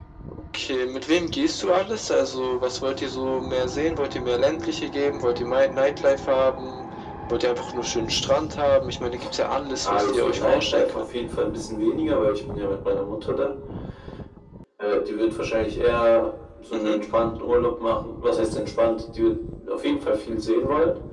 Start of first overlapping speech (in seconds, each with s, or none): 9.8 s